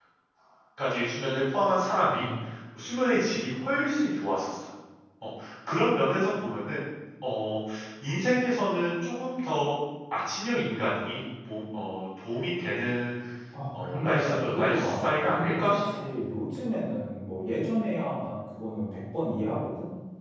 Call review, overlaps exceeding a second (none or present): present